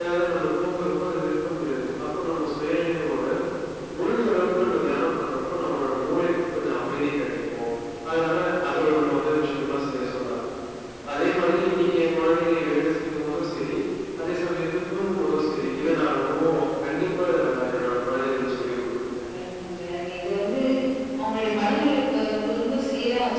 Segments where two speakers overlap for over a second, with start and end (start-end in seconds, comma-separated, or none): none